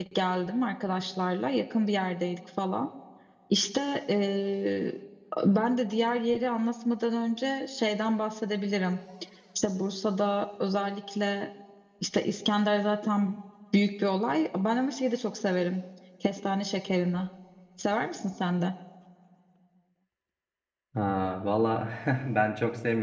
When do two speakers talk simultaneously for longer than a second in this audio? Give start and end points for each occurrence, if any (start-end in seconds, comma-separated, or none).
none